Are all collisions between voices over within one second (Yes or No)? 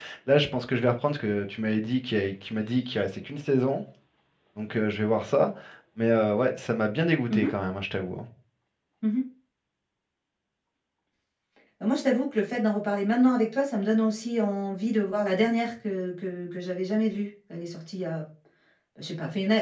Yes